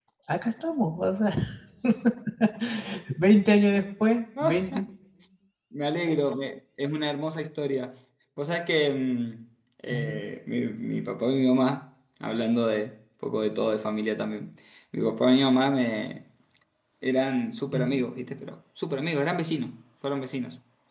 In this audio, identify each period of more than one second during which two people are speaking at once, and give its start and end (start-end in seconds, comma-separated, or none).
none